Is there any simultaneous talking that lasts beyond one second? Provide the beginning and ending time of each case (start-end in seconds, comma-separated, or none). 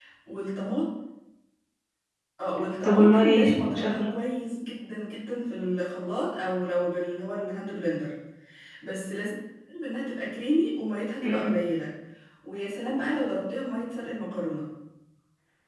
2.8-4.1